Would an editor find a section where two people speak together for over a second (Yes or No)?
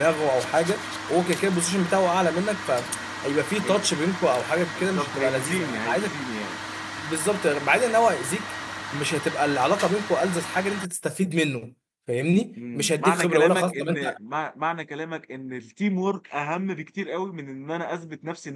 Yes